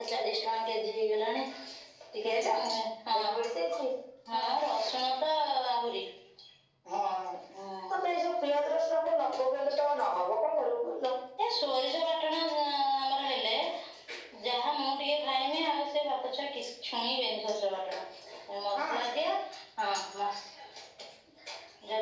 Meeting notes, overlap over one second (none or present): none